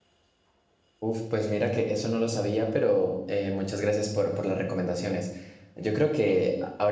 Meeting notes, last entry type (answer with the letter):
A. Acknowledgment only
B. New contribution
B